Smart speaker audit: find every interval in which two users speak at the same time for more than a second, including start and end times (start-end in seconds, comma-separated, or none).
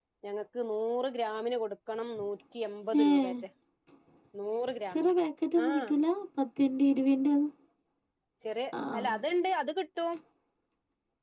none